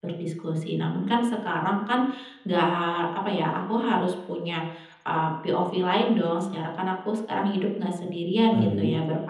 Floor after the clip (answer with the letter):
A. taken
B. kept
B